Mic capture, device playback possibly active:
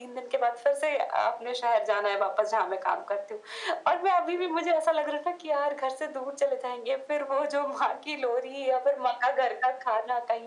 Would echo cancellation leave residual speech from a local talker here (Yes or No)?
No